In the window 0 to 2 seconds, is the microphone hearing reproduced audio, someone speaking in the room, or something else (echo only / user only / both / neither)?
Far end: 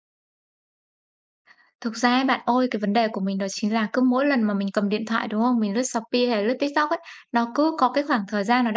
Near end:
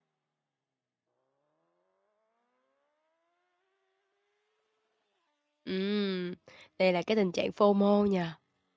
neither